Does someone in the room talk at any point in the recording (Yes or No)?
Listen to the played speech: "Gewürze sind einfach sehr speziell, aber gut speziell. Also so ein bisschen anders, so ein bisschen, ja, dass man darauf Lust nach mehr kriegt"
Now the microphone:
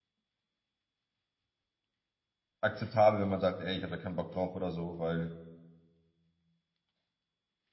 Yes